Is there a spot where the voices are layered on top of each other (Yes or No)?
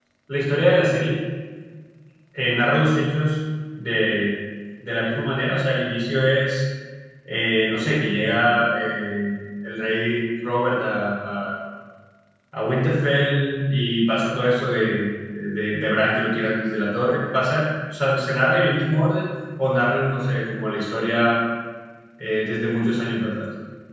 No